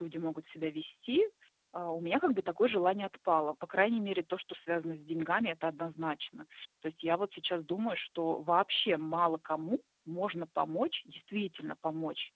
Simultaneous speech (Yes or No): No